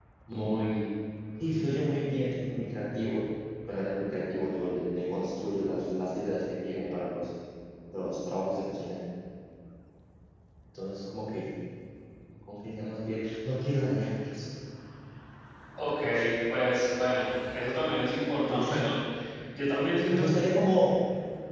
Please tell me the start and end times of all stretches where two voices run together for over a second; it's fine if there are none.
none

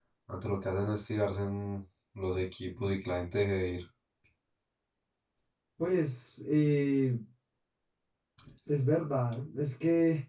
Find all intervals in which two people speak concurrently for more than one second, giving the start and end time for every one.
none

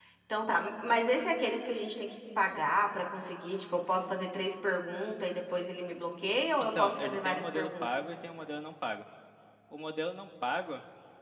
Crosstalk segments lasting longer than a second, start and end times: 6.6-7.9

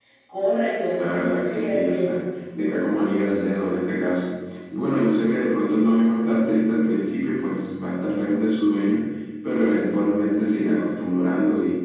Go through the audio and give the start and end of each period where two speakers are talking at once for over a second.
1.0-2.2

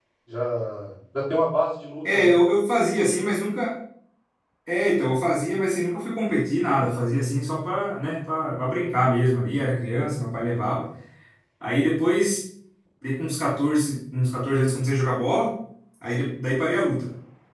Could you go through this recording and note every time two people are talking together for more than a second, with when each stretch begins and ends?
none

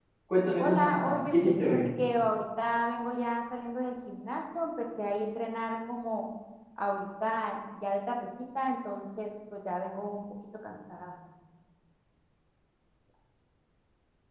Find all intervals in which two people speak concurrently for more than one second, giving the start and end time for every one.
0.6-1.9

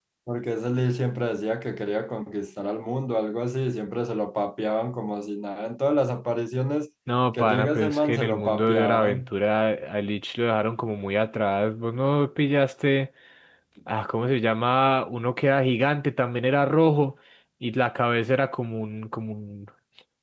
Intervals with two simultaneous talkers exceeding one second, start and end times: 7.3-9.3

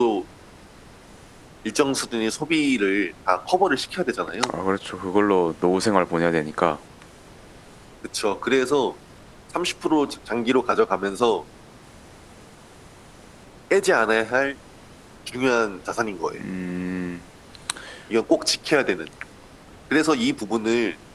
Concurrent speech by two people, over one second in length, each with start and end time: none

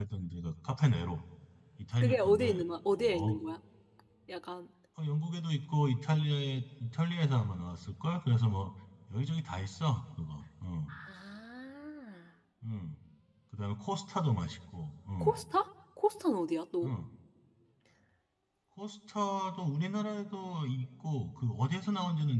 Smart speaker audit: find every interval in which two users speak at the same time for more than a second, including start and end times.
2.0-3.3

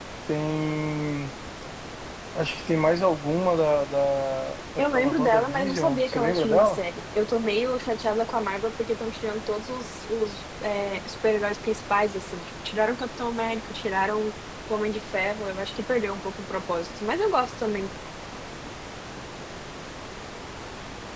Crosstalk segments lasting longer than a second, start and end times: 4.9-6.8

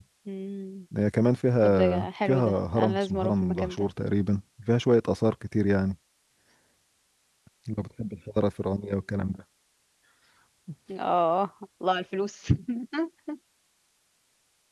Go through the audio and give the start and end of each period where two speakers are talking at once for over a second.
1.6-3.9

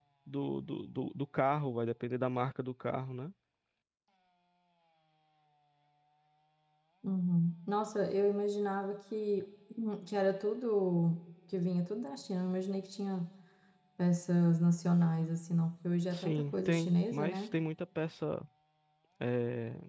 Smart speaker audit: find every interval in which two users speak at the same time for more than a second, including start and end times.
16.1-17.5

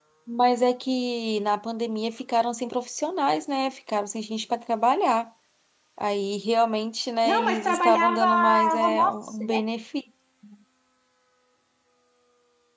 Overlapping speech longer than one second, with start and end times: 7.2-9.6

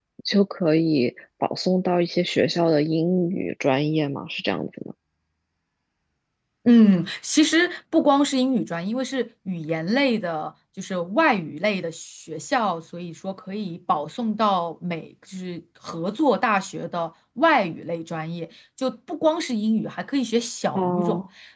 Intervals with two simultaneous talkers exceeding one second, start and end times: none

